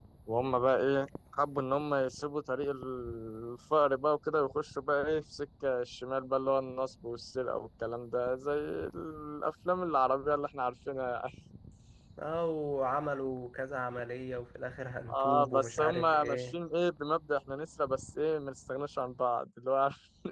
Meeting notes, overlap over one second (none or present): present